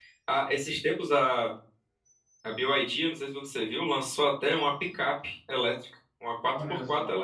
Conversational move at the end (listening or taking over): listening